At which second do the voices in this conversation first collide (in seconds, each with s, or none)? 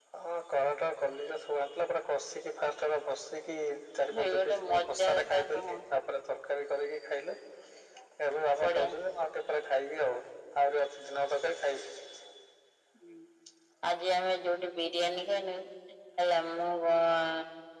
4.2 s